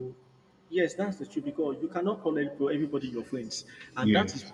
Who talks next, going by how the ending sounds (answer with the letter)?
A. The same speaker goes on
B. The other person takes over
A